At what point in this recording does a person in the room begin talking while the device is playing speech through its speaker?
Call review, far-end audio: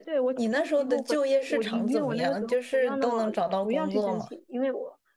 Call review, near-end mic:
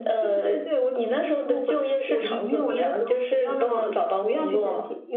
none

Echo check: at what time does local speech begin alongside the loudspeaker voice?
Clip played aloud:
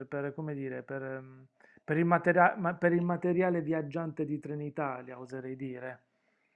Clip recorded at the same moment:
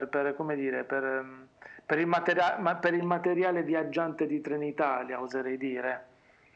none

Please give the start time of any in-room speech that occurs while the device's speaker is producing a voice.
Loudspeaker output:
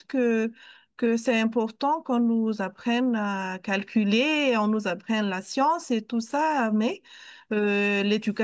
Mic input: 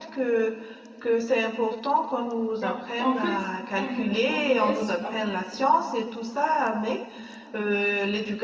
3 s

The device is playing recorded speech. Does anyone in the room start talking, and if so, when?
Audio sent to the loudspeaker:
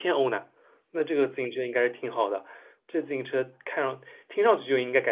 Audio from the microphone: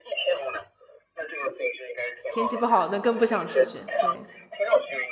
2 s

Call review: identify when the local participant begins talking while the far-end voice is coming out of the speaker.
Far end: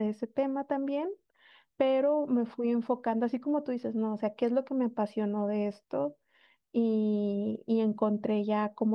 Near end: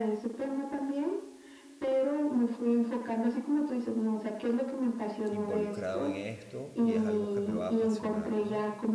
5 s

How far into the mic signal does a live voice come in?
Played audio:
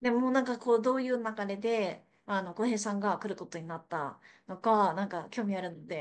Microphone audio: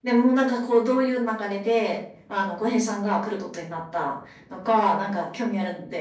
none

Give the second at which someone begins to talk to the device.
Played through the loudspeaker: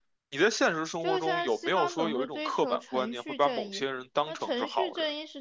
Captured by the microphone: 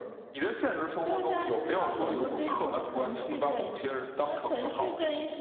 none

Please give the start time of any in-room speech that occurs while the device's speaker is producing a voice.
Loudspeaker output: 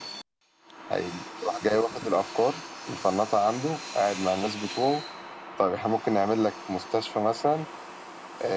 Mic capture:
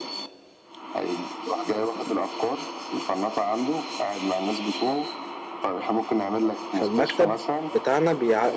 7 s

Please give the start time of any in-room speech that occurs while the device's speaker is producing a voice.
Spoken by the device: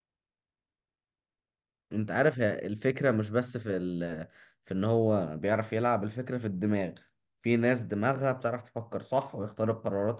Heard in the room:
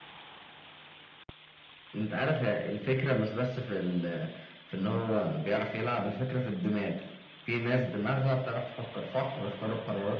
none

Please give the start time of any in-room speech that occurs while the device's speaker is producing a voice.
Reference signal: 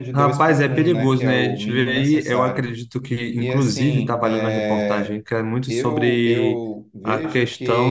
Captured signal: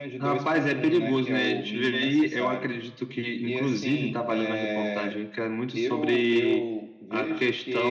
none

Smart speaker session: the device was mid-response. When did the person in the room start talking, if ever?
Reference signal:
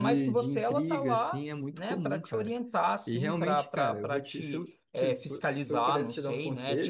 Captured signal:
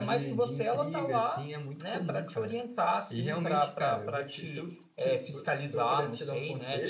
none

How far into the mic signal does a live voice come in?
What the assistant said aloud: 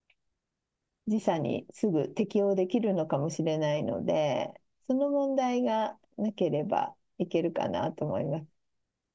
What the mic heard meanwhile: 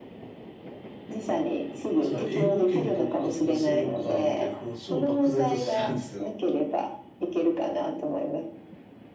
2 s

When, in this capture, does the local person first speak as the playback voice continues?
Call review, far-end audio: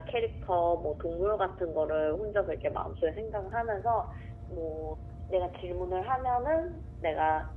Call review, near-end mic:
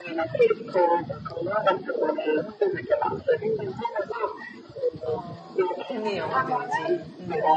5 s

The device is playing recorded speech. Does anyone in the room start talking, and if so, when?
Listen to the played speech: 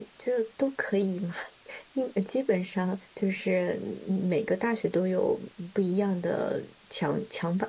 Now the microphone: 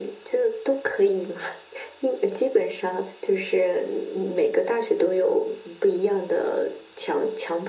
none

